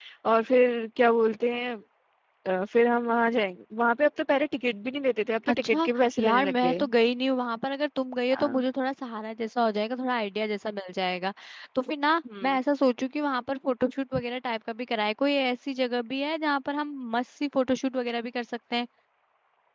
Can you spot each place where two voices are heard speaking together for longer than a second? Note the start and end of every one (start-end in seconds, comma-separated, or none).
5.5-6.8